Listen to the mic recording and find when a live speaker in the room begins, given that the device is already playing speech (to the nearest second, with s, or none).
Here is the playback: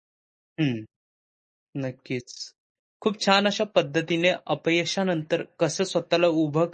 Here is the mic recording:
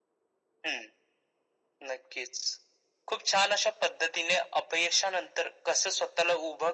none